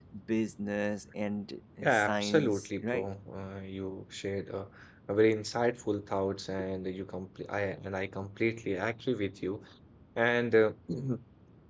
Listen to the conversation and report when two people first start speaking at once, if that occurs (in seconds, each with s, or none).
1.8 s